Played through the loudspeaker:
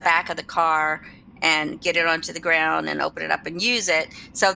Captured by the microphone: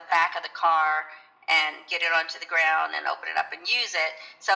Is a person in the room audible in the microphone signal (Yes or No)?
No